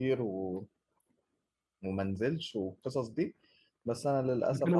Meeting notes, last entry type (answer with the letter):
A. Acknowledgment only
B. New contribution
B